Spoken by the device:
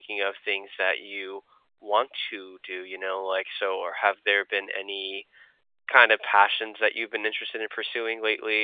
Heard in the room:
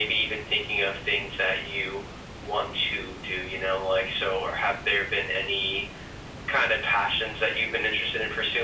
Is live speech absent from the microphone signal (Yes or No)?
Yes